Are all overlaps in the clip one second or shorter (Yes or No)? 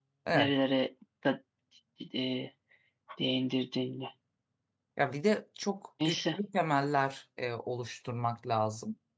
Yes